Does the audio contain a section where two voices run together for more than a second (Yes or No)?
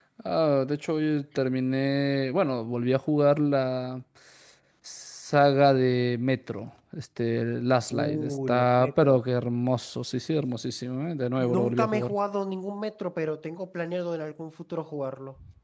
Yes